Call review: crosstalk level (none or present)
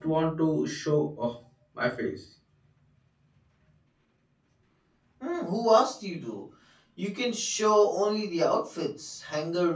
none